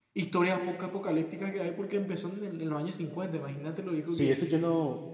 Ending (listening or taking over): taking over